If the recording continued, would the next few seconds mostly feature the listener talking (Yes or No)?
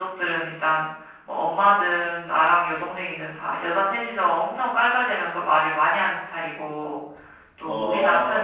No